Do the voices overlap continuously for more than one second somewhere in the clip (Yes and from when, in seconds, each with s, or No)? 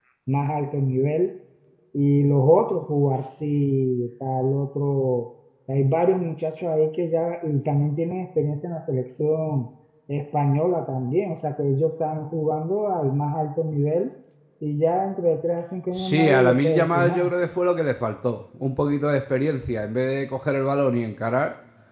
Yes, from 15.9 s